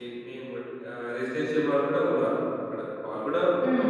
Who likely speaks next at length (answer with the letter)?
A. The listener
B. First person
B